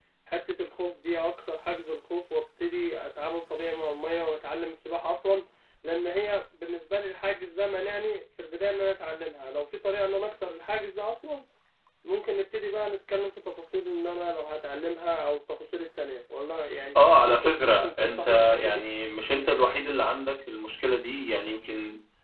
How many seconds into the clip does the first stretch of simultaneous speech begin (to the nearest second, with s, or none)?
17 s